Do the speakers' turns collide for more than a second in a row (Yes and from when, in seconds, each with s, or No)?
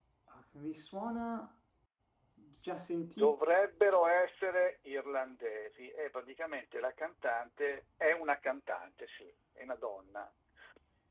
No